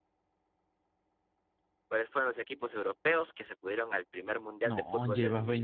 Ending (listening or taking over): taking over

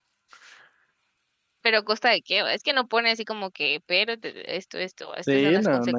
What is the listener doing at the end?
taking over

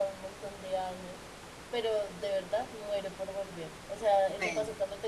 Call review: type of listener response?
listening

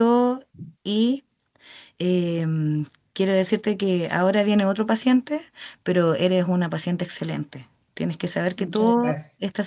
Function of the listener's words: listening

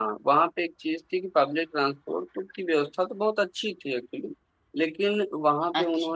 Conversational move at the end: listening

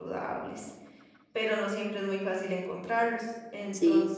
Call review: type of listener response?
listening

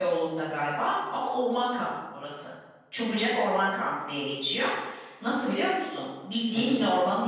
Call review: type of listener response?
listening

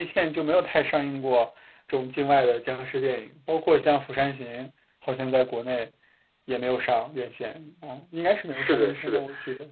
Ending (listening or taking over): taking over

